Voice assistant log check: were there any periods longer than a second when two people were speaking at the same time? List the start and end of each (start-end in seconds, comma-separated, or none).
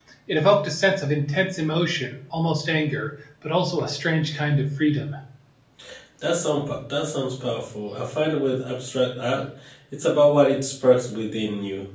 none